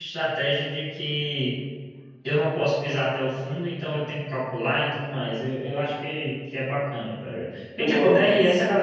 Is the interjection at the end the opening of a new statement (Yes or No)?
No